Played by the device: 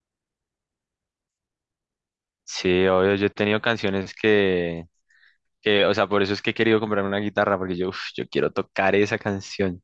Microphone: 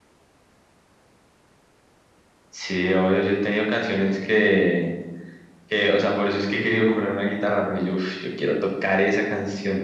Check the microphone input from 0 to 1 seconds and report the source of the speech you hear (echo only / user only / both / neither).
neither